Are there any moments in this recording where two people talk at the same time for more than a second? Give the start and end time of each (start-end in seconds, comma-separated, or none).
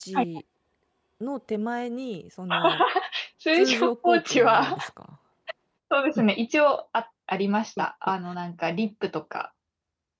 3.5-4.8